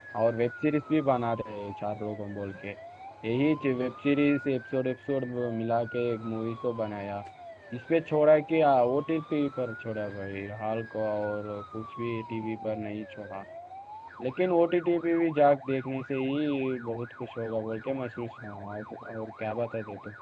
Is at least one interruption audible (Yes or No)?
No